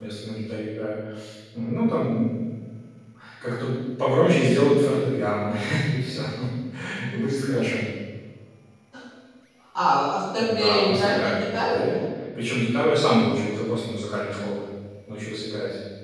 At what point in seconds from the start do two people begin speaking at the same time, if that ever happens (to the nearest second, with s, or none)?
10 s